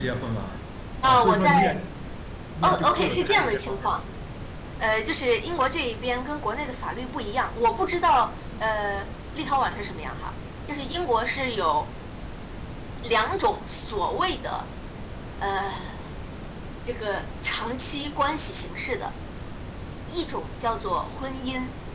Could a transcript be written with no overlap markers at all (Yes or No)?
No